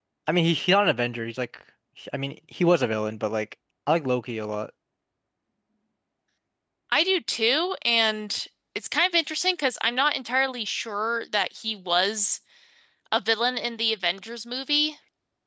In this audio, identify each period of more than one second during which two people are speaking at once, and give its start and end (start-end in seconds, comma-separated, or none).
none